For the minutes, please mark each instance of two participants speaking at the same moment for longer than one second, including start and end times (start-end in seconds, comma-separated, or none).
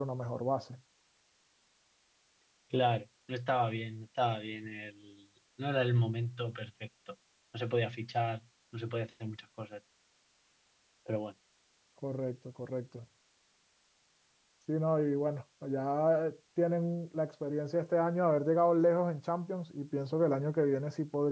none